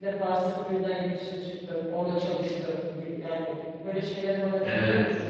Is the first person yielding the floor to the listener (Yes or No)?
Yes